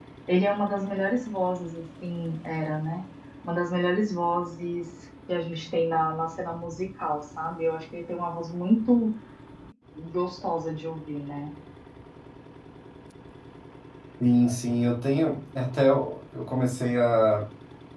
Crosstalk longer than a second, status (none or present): none